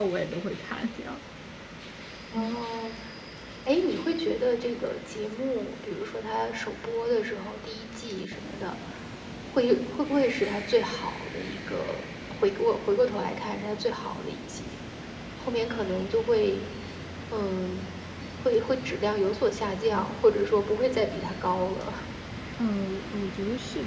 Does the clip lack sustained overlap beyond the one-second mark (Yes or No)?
Yes